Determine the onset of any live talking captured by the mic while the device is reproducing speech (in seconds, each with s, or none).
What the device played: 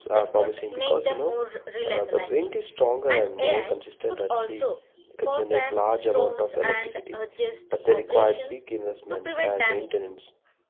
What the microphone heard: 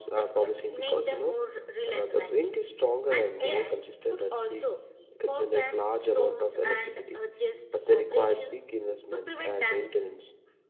none